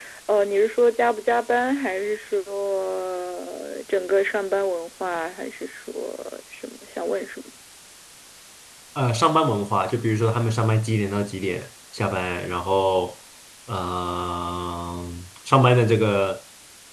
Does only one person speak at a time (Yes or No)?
Yes